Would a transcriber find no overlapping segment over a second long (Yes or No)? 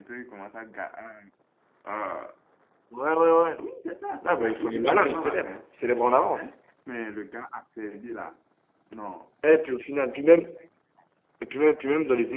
No